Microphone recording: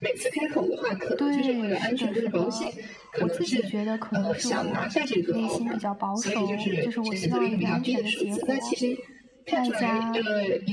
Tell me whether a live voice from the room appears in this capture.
Yes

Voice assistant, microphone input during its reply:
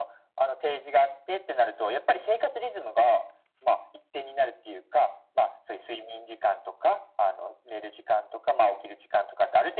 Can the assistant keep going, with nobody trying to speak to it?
Yes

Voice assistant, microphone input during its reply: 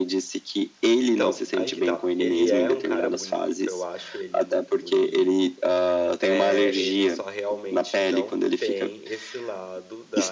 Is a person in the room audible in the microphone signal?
Yes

